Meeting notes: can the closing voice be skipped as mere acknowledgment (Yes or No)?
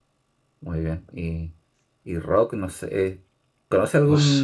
Yes